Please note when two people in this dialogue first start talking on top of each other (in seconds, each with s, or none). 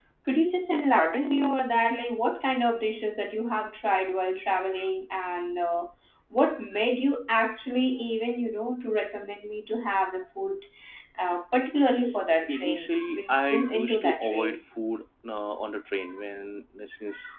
12.5 s